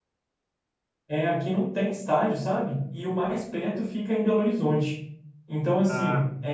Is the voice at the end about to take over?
No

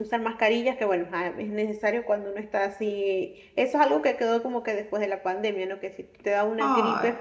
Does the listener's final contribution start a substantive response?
No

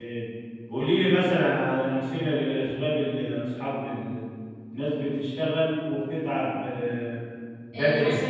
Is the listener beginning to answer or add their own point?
Yes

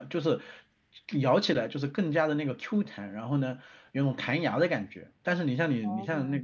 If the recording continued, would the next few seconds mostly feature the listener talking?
No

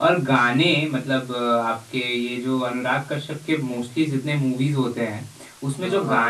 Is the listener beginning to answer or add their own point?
No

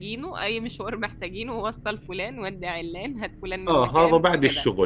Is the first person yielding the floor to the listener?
Yes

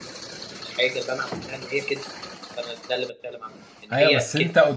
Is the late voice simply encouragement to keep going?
No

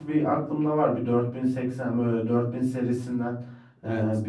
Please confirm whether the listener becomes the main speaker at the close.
No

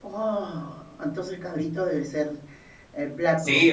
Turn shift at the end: Yes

